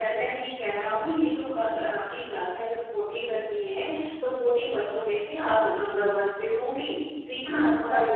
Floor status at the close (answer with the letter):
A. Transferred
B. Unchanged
B